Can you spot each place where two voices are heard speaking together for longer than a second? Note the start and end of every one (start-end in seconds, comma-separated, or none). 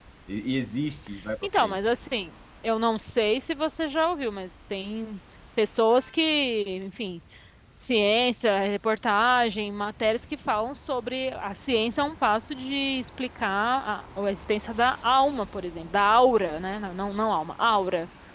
none